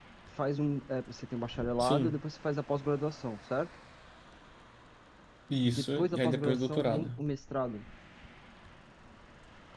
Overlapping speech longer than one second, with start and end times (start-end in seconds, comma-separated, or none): 5.6-7.1